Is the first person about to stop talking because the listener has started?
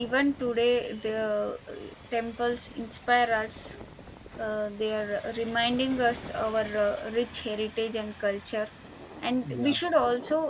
No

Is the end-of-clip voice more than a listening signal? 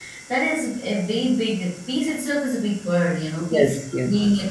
No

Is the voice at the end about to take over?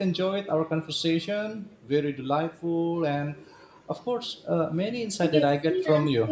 Yes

